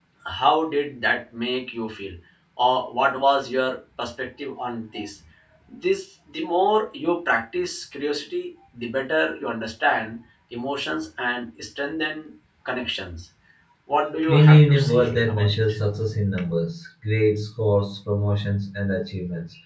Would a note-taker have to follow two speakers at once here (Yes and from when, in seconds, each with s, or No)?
Yes, from 14.3 s